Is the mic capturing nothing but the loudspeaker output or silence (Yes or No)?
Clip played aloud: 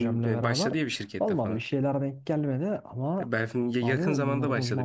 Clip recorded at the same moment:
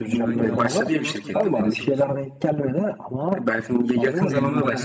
No